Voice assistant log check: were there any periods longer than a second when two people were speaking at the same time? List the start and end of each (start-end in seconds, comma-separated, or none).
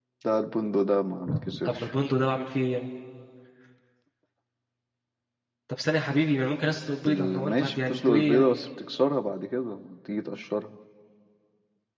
7.1-8.6